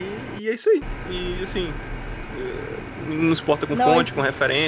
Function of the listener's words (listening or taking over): listening